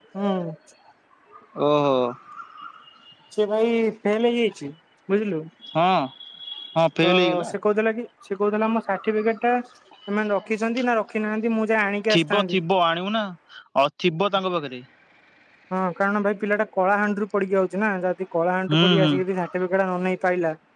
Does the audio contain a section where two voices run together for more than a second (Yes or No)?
No